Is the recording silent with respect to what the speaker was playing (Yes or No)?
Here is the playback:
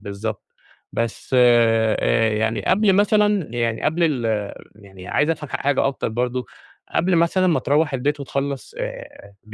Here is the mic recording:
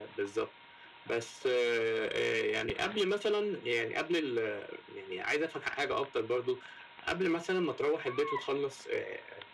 No